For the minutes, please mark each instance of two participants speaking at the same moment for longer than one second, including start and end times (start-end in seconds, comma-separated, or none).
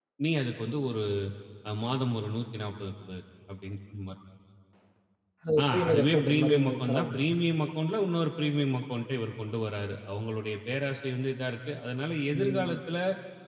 5.6-7.2